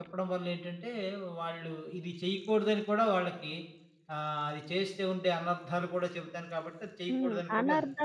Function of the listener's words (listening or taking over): taking over